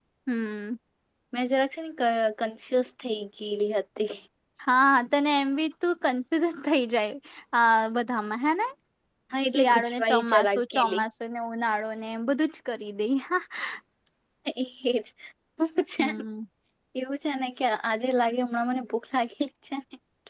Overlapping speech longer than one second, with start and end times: 9.5-11.0

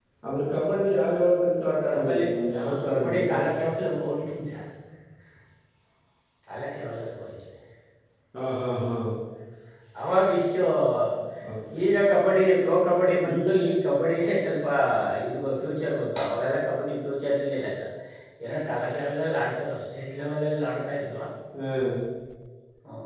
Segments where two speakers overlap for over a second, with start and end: 1.9-3.3

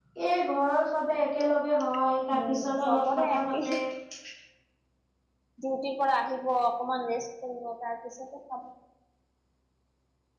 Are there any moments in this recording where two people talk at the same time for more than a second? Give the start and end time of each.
2.5-3.7

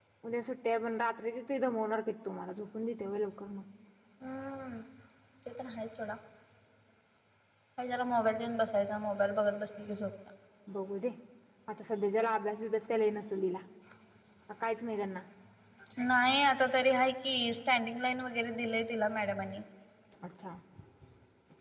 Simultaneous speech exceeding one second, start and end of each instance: none

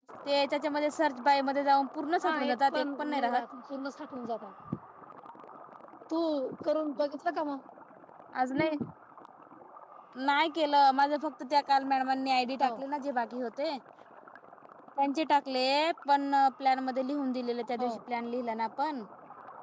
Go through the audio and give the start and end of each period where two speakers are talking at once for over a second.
2.2-3.4

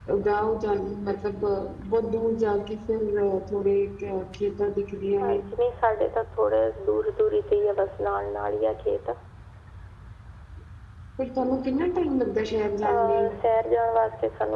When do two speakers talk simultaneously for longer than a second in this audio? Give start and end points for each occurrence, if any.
none

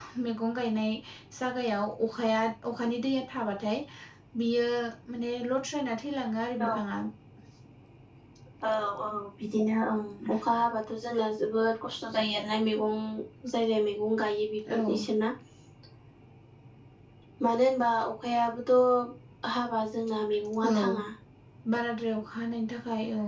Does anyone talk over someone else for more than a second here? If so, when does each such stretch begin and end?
none

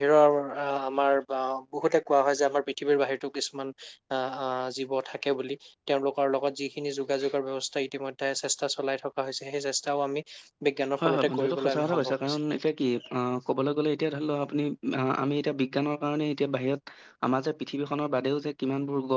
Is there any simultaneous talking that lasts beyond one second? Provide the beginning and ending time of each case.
11.0-12.4

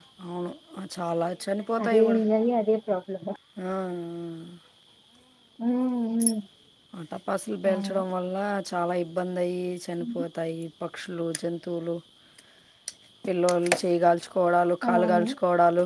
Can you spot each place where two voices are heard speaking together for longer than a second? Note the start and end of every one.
none

